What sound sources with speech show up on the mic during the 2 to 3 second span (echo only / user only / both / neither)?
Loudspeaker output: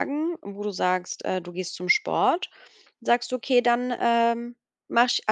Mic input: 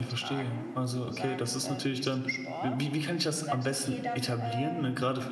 both